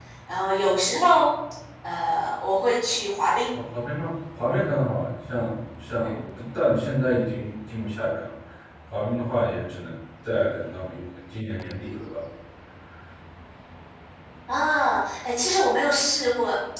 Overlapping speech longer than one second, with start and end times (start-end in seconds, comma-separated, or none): none